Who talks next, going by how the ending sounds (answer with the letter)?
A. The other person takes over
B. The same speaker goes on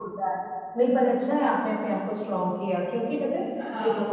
B